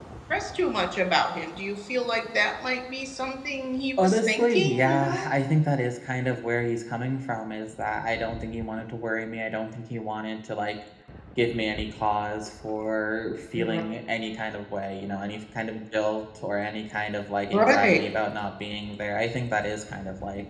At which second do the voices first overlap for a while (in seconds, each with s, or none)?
4.0 s